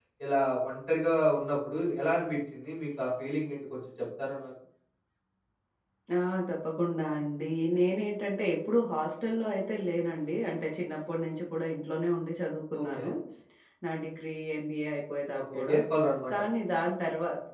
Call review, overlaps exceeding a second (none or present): none